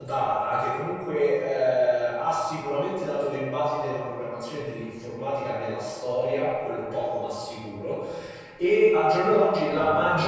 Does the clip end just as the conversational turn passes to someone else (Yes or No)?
No